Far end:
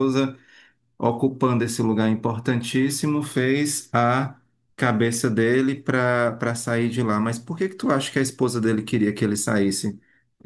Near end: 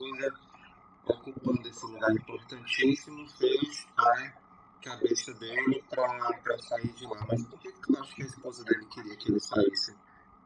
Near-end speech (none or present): none